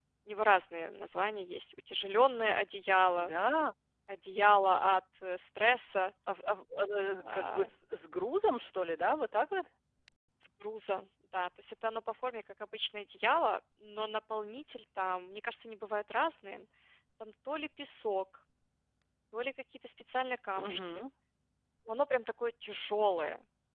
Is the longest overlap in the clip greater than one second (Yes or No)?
No